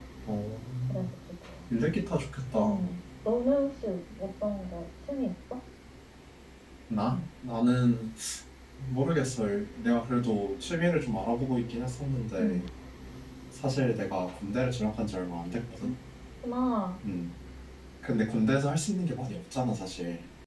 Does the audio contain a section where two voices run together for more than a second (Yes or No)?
No